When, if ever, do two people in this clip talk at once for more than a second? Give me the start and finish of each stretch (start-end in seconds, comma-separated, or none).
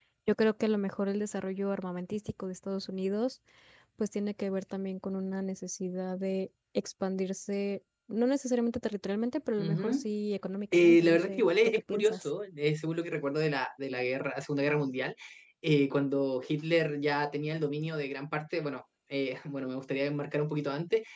10.7-12.3